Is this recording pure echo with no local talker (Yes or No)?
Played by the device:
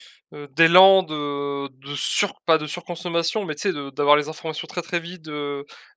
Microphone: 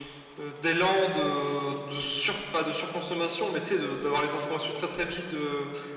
Yes